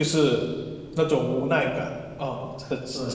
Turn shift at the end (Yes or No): Yes